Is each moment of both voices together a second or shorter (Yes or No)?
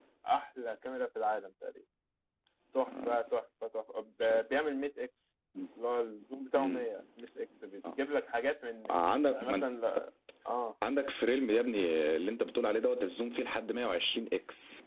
Yes